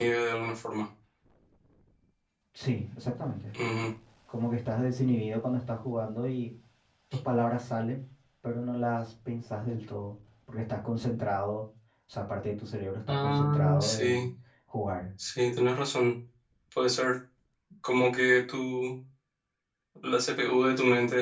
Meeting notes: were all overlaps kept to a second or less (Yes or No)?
No